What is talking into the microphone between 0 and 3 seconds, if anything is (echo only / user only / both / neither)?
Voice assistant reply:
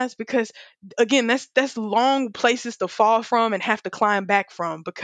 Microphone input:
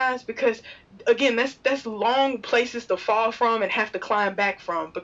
echo only